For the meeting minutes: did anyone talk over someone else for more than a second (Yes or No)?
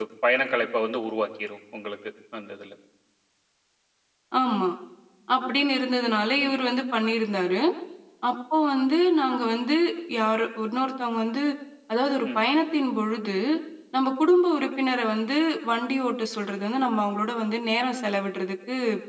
No